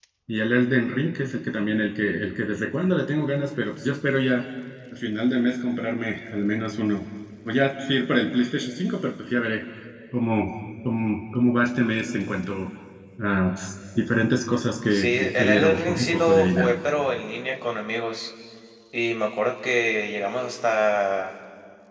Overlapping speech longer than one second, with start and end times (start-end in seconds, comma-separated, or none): 14.9-16.7